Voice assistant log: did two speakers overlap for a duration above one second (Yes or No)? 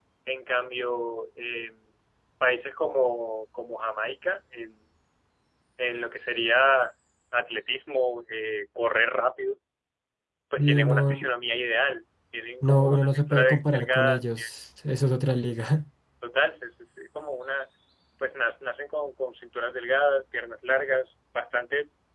Yes